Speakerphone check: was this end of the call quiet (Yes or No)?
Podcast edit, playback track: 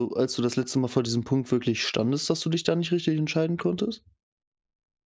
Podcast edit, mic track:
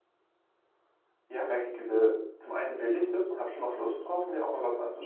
No